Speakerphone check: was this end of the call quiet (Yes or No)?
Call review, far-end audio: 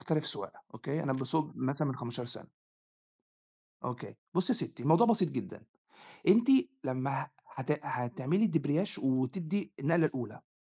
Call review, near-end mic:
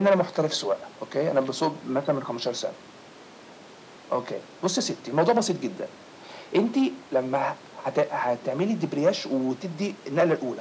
Yes